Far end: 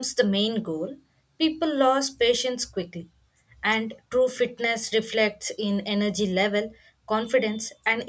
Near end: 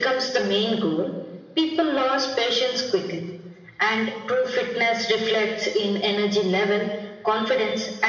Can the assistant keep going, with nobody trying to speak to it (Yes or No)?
Yes